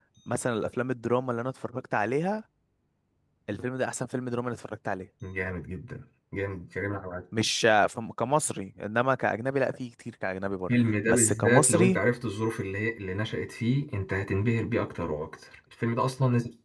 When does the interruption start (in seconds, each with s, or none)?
10.7 s